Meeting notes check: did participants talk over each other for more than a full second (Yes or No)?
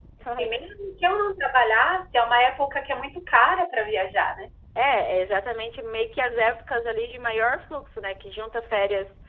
No